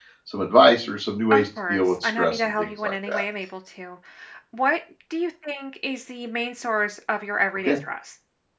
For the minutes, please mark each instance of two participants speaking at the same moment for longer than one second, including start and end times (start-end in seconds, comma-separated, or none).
1.3-3.2